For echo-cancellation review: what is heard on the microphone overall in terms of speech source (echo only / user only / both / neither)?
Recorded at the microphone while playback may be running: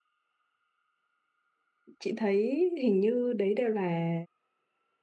user only